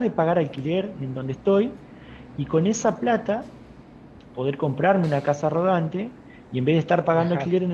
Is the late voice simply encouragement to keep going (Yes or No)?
Yes